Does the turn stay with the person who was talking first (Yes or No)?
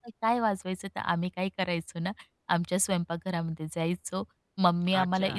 Yes